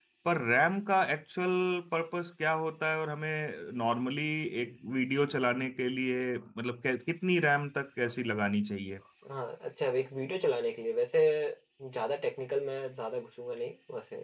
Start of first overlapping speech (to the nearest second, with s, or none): none